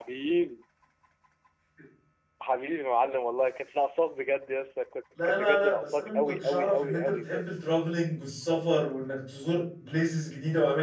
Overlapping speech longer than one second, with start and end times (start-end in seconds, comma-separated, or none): 5.2-7.5